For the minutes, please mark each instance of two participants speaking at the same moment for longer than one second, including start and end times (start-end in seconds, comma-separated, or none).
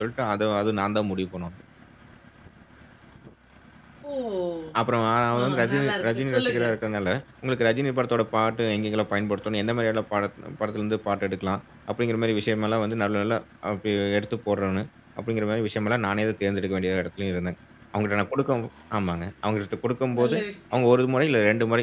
5.4-6.6